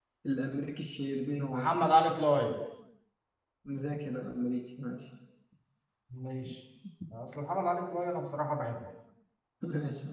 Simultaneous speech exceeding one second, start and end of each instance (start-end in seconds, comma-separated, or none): none